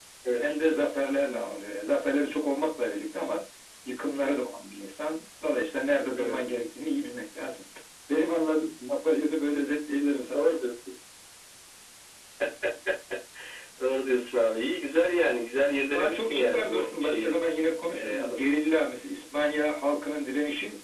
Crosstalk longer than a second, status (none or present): present